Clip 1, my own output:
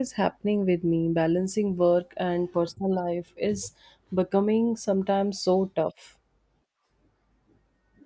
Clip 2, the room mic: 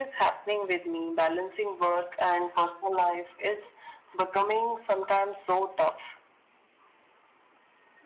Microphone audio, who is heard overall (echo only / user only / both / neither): echo only